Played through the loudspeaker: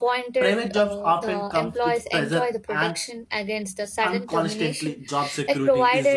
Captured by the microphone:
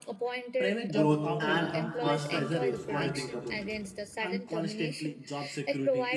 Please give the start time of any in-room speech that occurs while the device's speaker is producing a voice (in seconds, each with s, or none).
0.9 s